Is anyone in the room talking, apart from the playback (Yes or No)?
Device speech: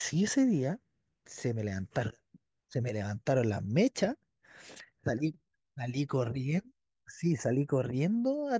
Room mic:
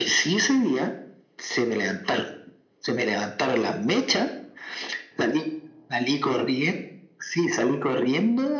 No